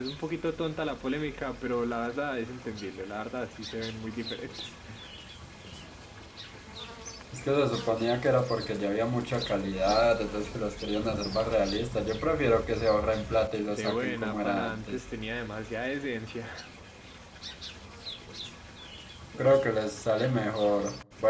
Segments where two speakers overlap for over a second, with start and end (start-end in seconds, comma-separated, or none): 13.7-15.0